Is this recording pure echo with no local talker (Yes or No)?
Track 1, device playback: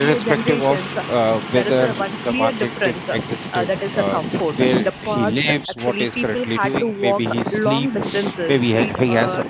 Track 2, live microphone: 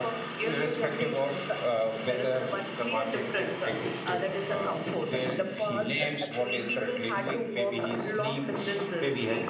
Yes